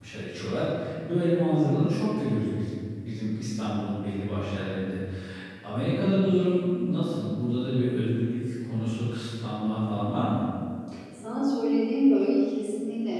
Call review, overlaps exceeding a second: none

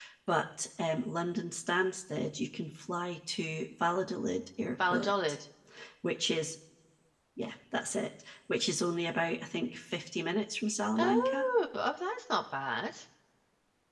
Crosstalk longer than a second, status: none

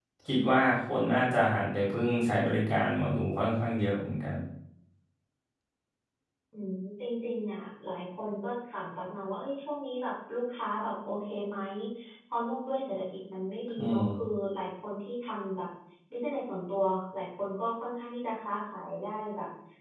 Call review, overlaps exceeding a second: none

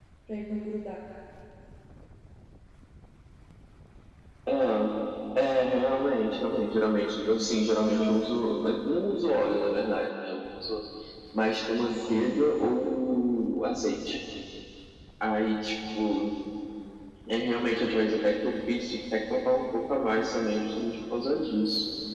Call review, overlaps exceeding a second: none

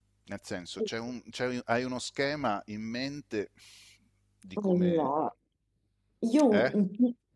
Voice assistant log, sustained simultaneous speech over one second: none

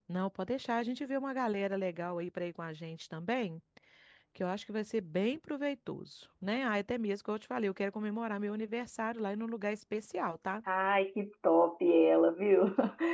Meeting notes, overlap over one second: none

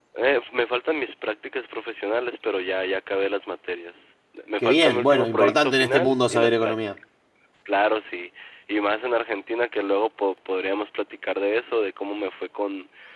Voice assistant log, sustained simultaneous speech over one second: present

